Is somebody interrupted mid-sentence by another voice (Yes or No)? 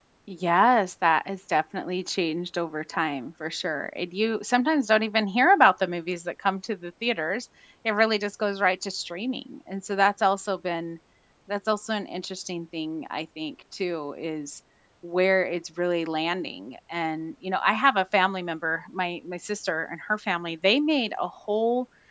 No